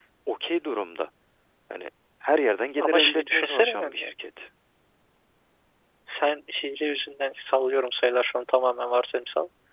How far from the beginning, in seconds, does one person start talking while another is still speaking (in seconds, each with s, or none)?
2.8 s